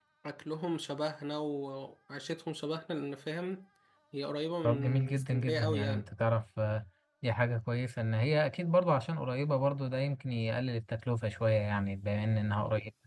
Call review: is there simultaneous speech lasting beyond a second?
Yes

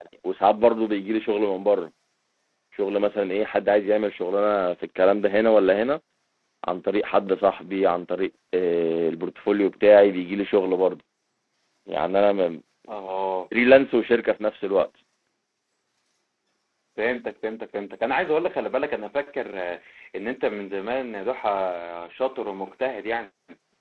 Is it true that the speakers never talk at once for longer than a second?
Yes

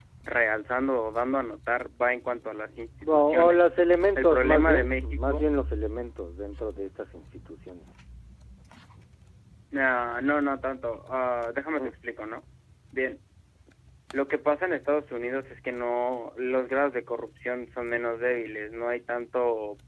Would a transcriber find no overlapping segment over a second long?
No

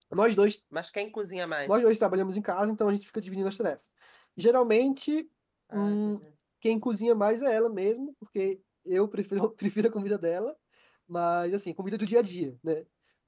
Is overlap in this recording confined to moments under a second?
Yes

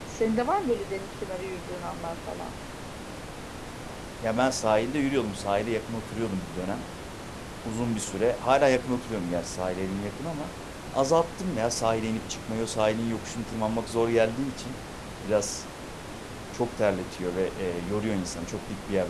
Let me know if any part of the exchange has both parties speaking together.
No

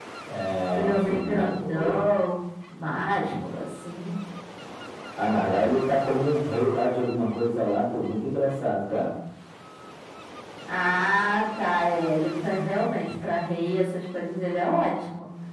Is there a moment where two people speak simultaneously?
Yes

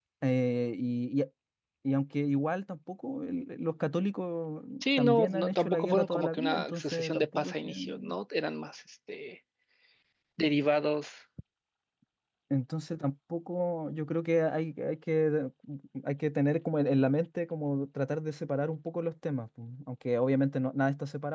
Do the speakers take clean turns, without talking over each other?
No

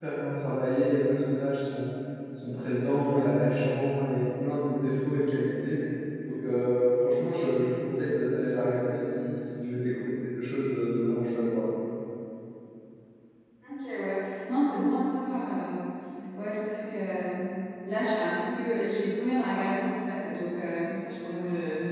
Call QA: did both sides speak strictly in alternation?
Yes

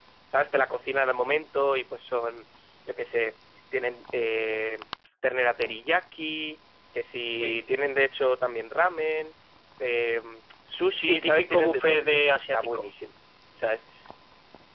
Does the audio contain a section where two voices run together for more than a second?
Yes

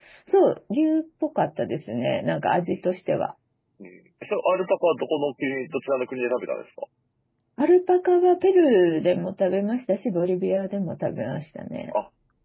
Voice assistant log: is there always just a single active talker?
Yes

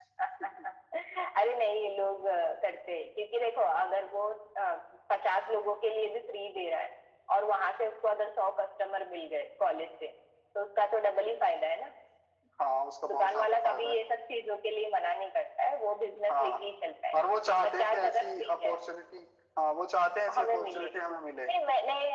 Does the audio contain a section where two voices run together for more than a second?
Yes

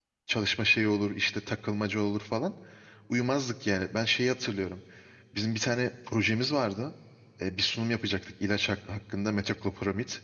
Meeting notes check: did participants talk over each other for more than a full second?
No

